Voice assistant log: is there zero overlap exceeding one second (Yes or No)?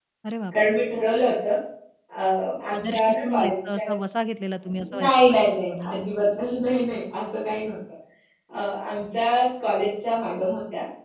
No